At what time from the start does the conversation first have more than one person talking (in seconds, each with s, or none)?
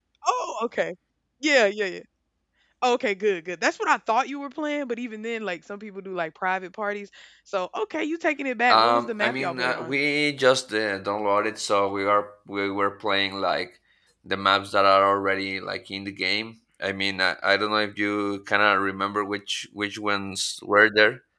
8.7 s